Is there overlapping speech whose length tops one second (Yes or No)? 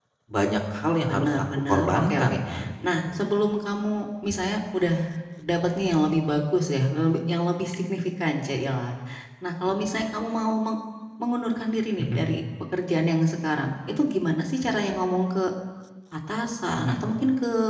Yes